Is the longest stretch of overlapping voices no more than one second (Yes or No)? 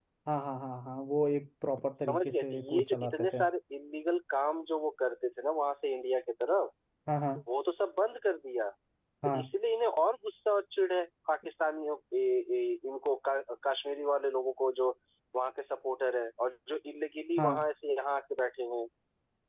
No